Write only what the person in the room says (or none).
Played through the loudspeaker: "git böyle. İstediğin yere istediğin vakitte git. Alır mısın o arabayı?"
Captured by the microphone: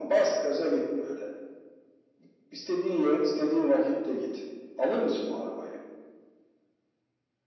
none